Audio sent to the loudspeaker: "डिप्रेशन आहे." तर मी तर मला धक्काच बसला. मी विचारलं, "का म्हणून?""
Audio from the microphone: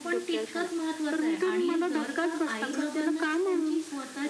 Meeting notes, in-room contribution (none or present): present